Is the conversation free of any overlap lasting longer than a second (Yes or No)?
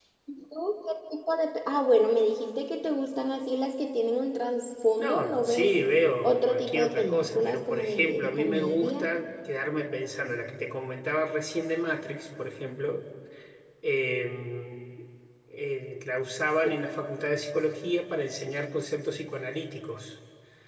No